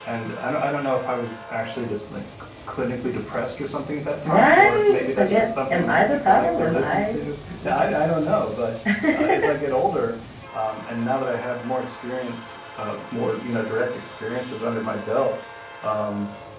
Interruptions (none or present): present